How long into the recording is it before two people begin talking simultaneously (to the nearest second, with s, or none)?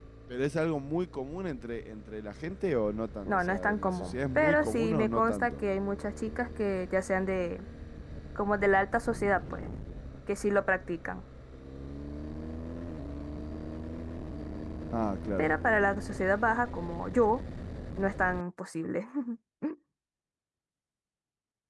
3 s